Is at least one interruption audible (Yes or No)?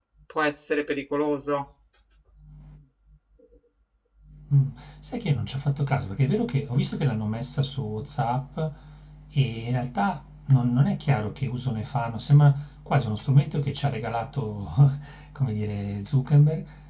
No